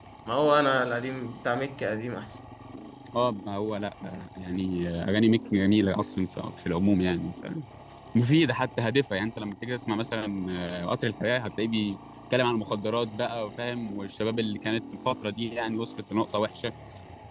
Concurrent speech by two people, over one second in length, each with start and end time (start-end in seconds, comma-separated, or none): none